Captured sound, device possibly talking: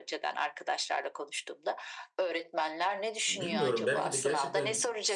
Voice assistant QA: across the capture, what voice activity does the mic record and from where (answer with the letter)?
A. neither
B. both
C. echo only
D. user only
B